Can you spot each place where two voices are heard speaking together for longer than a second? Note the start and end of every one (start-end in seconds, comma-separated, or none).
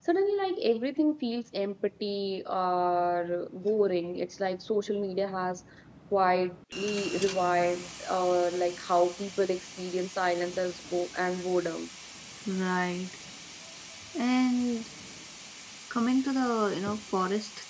none